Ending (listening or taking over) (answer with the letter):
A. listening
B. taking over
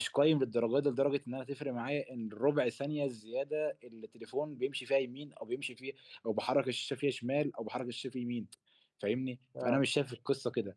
A